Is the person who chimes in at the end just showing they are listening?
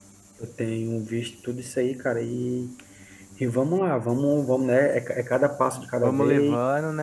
No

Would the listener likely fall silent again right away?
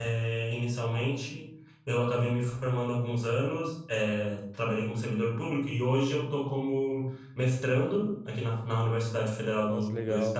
Yes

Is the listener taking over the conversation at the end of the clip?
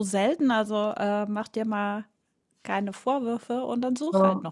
Yes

